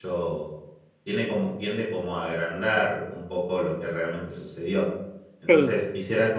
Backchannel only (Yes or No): Yes